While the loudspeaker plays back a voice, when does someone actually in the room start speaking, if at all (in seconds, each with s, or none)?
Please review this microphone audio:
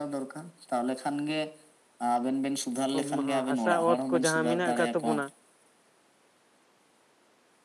3.0 s